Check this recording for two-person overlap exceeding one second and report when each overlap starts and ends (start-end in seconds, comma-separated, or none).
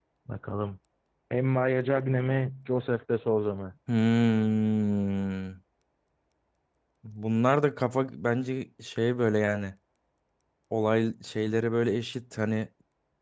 none